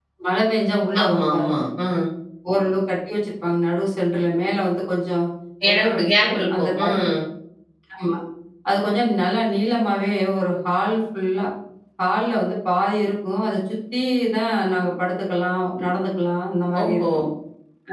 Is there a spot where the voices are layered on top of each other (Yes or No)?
Yes